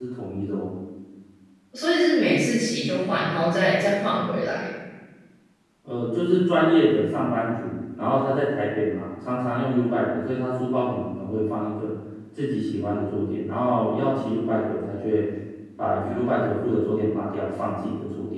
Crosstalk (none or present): none